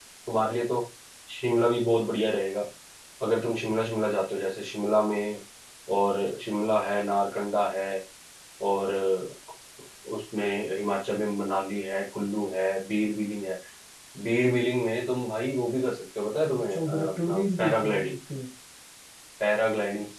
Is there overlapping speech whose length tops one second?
Yes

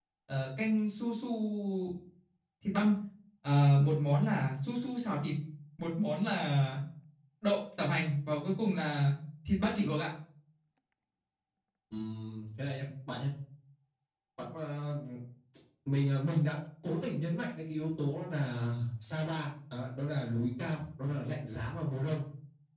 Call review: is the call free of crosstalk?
Yes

